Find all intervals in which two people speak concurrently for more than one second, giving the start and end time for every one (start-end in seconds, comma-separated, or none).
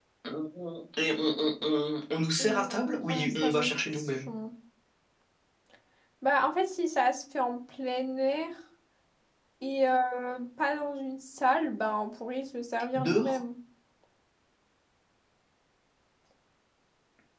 2.4-4.3